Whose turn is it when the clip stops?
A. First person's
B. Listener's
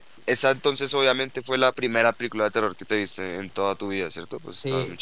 B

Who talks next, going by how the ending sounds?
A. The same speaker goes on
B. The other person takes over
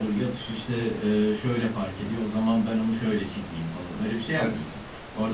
A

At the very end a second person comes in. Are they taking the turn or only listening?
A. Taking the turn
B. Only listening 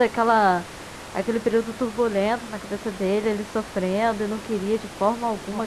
A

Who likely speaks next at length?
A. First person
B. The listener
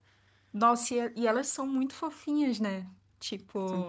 A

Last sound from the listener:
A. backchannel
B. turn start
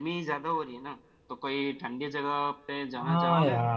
B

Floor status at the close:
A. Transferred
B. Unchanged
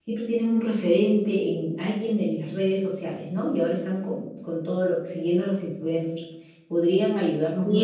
A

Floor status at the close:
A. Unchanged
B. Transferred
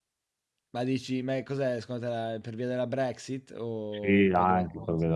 B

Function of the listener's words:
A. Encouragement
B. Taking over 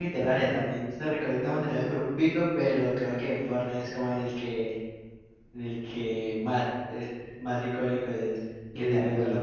B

